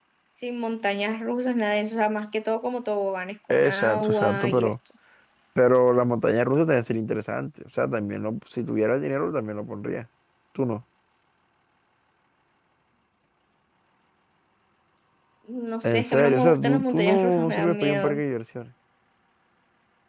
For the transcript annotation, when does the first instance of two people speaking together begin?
3.5 s

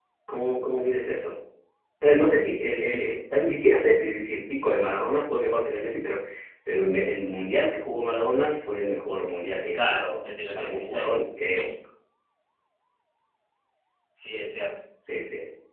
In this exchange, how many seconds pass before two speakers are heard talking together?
9.7 s

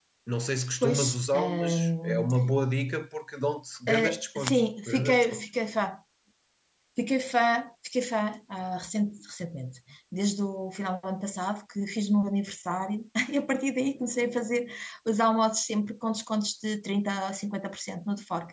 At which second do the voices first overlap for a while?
0.8 s

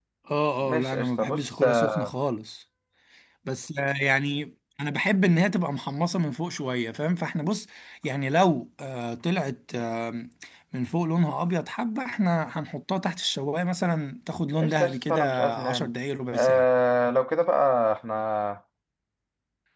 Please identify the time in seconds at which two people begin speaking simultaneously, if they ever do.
0.6 s

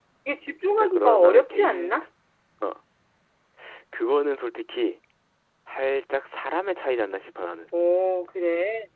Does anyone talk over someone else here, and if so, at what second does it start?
0.7 s

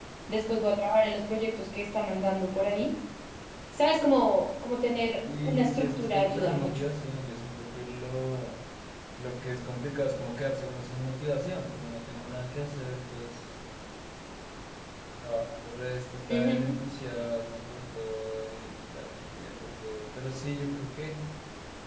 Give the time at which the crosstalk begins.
5.3 s

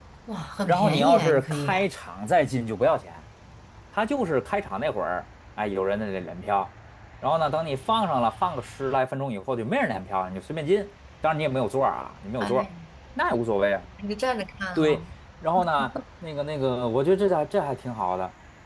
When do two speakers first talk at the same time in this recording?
0.6 s

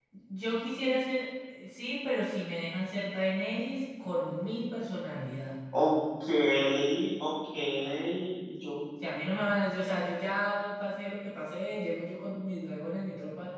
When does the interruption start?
none

